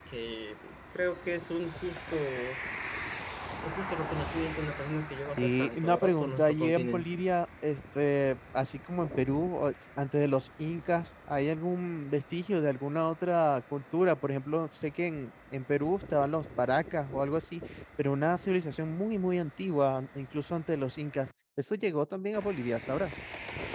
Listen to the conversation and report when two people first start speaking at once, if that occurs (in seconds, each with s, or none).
5.4 s